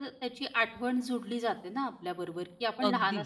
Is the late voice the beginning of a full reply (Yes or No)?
No